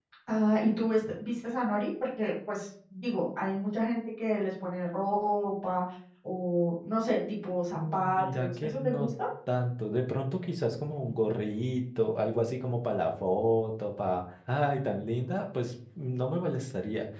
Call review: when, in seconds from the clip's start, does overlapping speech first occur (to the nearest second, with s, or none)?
8 s